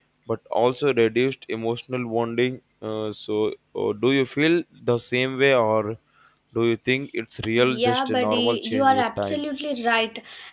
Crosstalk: present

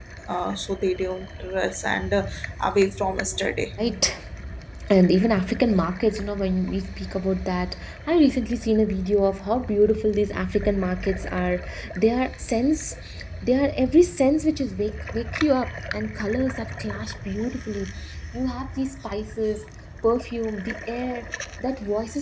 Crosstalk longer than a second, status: none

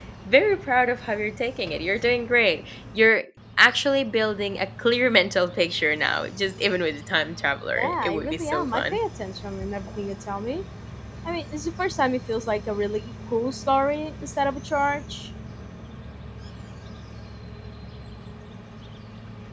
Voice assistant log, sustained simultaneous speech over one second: present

